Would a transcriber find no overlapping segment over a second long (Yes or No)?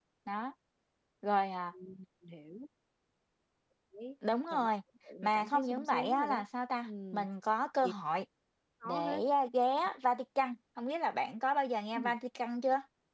No